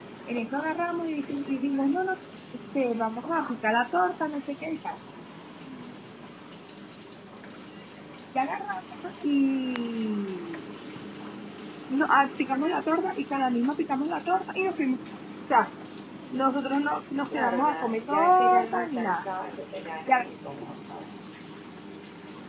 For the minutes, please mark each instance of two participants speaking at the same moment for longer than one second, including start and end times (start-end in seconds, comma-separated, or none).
17.3-19.3